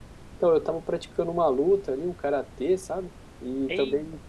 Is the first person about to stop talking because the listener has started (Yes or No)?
No